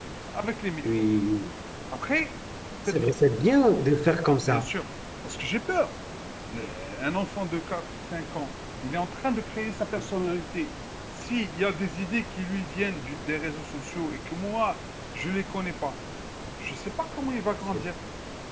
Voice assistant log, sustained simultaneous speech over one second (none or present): none